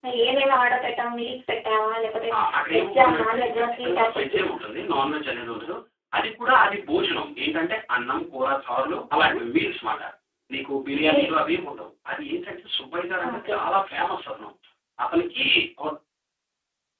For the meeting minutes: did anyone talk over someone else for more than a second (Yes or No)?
Yes